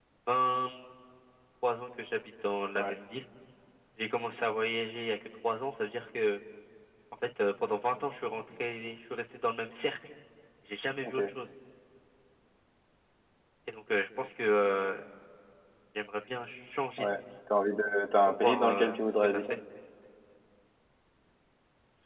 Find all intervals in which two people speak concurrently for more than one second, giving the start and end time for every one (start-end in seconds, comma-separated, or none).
18.3-19.5